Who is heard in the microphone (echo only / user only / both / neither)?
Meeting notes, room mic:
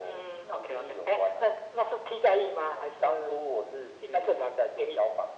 echo only